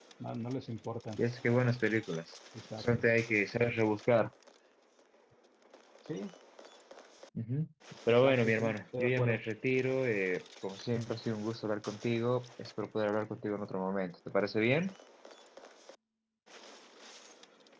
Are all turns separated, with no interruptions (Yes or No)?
No